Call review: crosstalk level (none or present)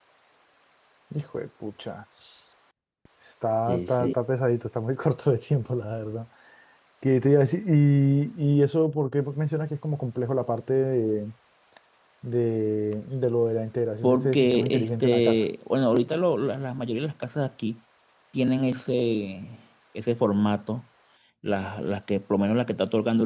present